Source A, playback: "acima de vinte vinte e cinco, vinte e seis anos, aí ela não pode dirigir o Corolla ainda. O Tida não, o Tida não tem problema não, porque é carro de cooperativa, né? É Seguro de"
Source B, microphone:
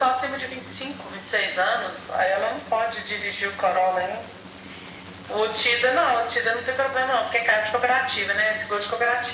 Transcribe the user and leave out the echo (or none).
none